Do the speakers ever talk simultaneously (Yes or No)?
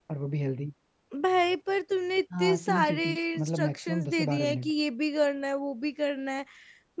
Yes